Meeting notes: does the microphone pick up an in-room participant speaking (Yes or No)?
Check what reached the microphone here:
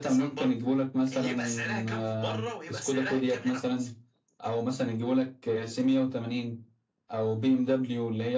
No